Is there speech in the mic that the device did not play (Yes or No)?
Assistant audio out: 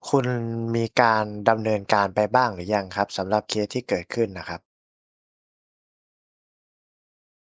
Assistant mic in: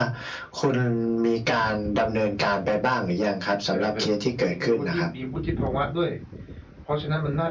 Yes